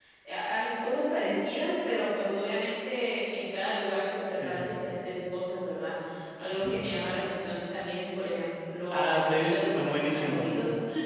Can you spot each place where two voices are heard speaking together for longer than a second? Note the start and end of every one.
8.9-10.5

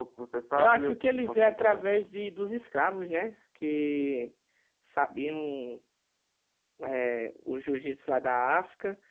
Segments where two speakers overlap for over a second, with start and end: 0.6-2.1

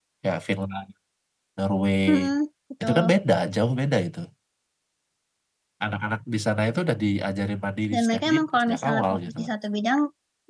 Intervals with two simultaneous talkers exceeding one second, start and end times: 7.9-9.2

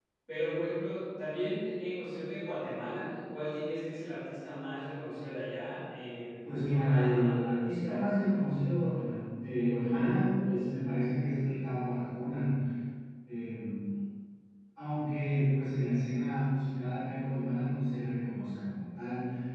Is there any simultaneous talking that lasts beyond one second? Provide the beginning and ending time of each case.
6.4-8.0

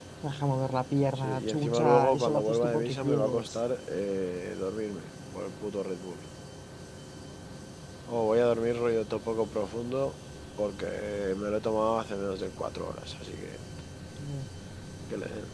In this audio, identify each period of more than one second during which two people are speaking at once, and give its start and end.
1.2-3.6

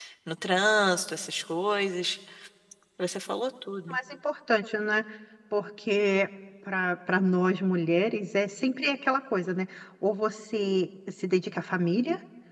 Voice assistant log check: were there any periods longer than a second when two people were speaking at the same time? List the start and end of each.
none

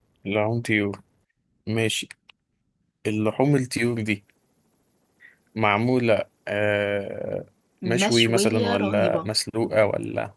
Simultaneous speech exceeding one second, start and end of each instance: 7.8-9.3

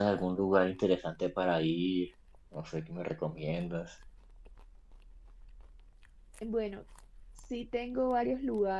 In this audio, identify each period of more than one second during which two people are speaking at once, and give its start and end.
none

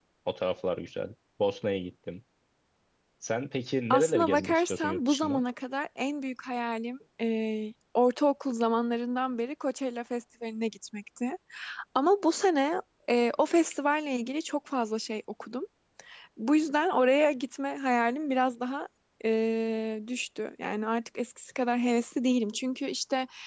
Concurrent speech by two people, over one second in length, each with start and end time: 3.9-5.4

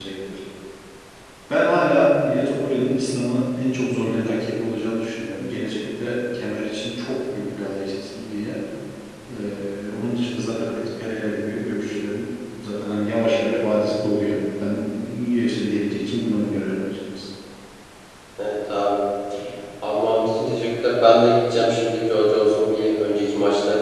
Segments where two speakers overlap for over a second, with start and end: none

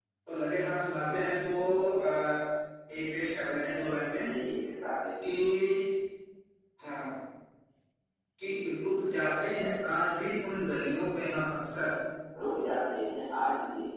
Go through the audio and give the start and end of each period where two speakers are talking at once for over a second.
none

